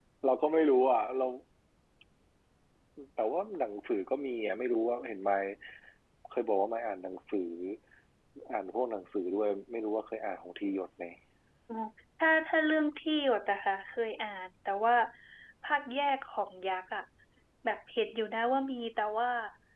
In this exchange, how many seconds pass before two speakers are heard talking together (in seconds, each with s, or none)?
none